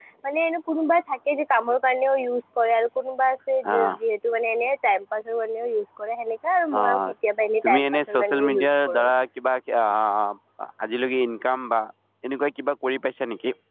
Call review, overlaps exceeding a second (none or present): present